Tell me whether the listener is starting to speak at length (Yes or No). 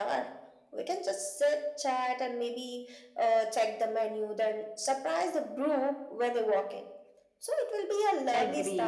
Yes